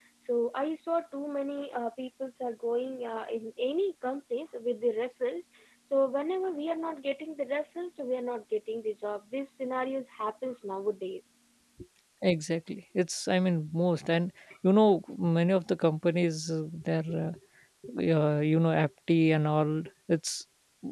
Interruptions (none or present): none